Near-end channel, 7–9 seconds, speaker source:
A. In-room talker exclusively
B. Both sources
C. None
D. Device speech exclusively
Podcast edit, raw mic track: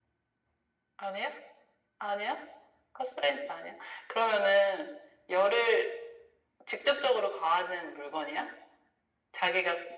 D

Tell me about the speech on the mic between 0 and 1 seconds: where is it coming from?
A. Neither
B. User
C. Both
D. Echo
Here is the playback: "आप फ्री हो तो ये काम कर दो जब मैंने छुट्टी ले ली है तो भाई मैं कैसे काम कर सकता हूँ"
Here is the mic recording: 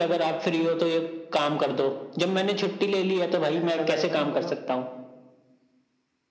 D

